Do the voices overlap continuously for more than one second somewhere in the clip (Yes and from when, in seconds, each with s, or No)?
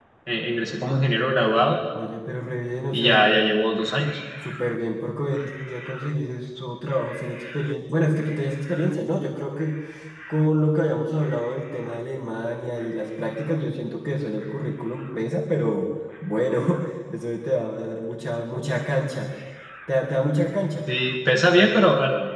No